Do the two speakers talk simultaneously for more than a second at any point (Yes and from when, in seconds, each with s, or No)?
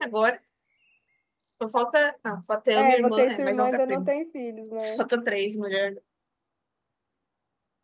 Yes, from 2.8 s